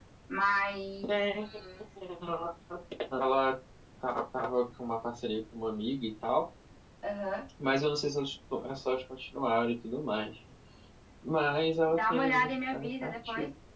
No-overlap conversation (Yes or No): No